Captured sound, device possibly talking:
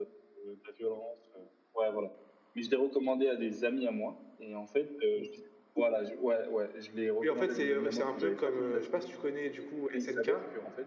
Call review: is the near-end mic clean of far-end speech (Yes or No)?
No